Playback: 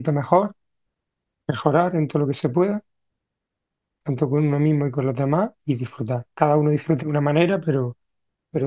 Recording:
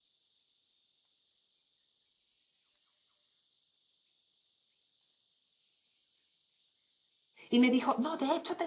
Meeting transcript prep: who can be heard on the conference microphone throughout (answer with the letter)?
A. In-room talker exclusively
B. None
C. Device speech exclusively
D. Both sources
A